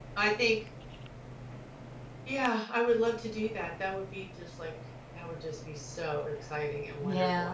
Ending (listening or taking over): taking over